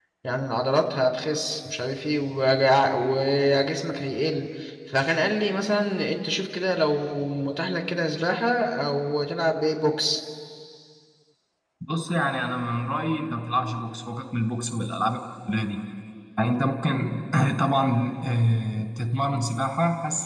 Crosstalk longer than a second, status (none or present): none